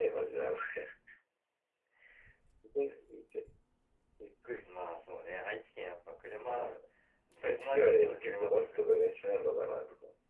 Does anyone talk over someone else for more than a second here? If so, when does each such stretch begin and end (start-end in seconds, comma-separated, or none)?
7.4-9.0